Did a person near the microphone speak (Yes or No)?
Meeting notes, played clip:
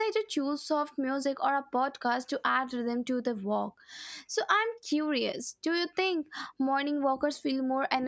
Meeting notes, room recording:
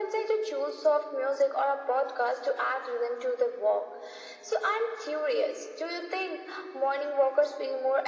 No